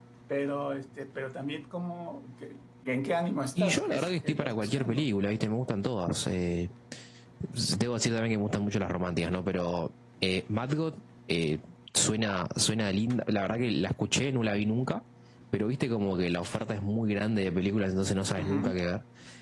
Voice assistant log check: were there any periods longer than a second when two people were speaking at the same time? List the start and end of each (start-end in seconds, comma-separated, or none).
3.5-5.0